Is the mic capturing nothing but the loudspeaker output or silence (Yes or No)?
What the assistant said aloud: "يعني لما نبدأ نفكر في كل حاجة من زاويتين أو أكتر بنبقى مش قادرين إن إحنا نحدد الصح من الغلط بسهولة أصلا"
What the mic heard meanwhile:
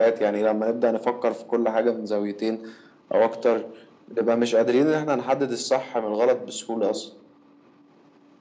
Yes